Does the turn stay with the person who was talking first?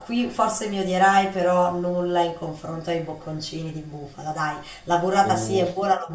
Yes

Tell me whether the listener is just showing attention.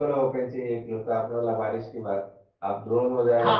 No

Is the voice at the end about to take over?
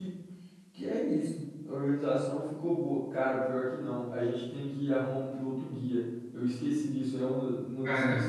No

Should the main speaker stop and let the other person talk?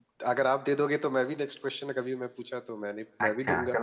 Yes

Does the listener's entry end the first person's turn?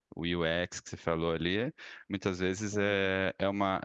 No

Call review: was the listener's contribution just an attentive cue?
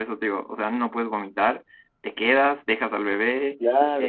No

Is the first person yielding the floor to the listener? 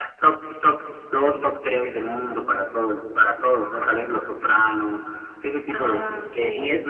No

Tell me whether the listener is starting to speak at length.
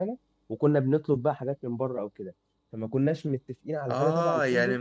Yes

